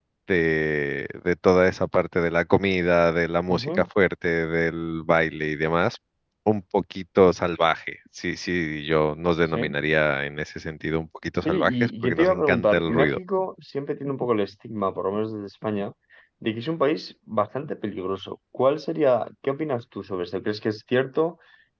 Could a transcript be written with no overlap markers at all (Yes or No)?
No